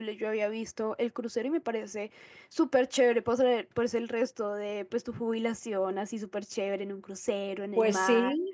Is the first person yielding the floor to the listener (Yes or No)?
Yes